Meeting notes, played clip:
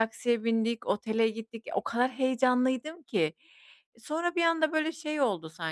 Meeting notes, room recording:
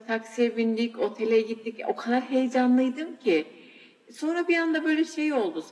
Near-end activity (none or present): none